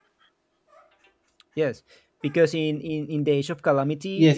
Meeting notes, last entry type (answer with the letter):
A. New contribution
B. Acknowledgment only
A